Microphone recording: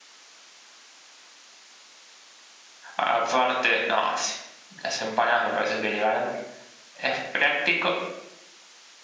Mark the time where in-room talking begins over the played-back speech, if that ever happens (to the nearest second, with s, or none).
3 s